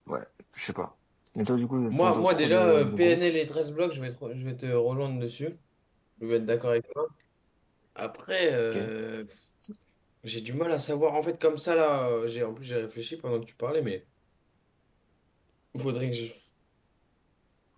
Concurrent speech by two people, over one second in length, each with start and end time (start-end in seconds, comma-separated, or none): 1.9-3.2